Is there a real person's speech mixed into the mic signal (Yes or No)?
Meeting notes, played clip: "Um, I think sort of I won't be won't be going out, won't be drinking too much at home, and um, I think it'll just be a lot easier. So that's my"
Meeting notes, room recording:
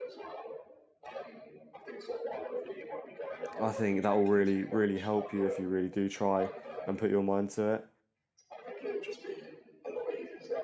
Yes